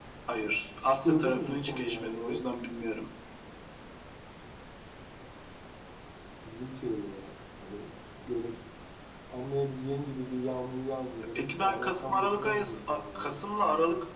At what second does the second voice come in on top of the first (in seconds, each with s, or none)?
0.5 s